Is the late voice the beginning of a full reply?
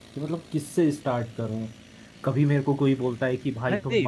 Yes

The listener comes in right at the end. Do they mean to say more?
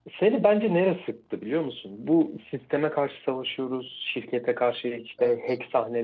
No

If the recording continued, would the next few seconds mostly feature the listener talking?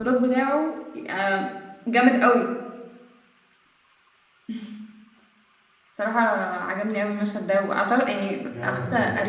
Yes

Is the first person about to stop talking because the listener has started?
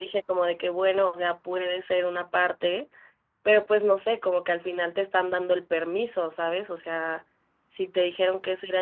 No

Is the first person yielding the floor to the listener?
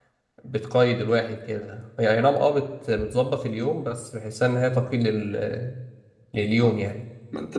Yes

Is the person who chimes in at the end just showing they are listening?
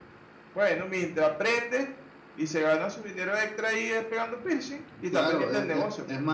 No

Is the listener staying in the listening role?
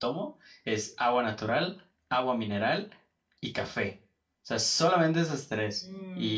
Yes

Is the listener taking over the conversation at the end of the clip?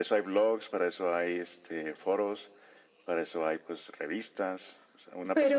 No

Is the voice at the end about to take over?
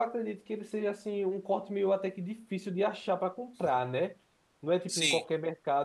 No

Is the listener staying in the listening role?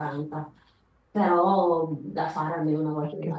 Yes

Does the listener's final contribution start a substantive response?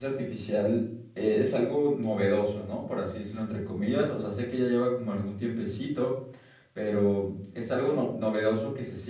No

